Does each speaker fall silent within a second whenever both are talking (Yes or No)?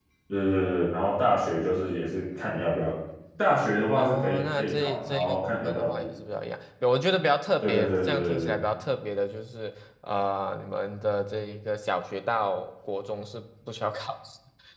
No